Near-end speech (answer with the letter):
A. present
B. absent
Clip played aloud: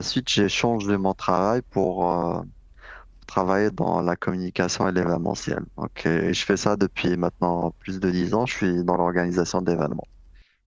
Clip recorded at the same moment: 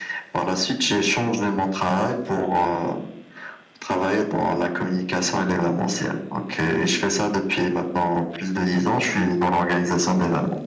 B